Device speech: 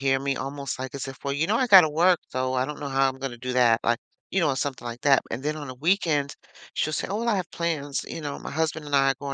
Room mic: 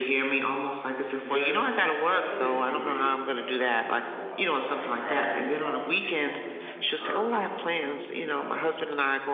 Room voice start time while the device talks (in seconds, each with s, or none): 1.2 s